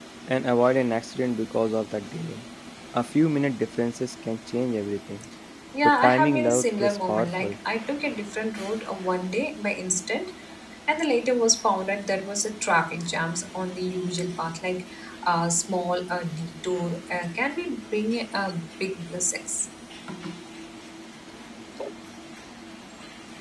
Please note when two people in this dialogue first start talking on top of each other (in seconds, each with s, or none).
5.8 s